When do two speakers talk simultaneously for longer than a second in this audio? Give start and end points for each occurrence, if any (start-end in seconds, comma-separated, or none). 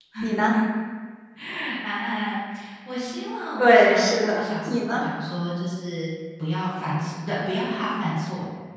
3.6-5.1